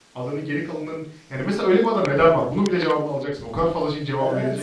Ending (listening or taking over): taking over